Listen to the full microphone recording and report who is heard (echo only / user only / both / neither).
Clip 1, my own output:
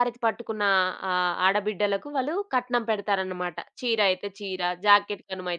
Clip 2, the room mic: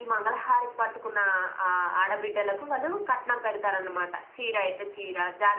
echo only